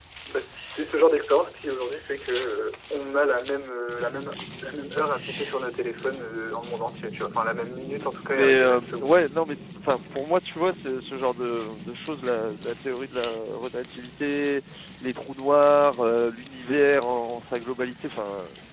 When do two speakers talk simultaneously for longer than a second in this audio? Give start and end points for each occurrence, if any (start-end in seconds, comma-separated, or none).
8.0-9.2